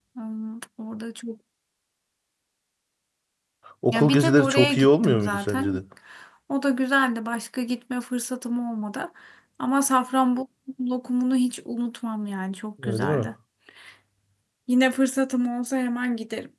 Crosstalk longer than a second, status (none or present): present